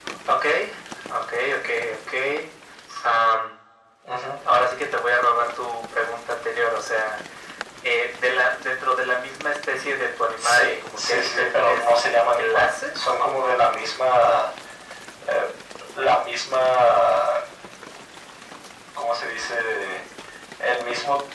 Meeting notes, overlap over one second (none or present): present